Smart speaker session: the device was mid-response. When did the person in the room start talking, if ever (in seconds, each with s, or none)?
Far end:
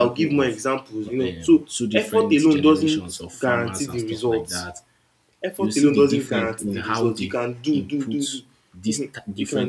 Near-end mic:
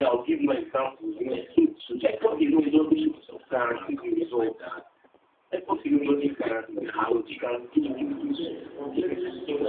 7.8 s